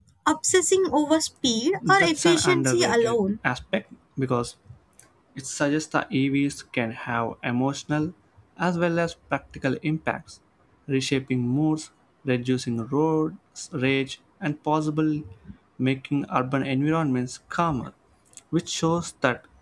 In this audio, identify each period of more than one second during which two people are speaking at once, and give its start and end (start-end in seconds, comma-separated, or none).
1.9-3.2